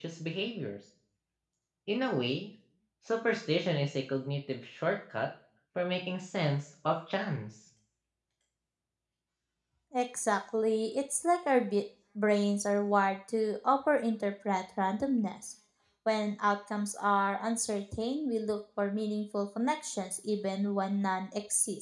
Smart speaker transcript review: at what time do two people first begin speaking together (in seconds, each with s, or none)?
none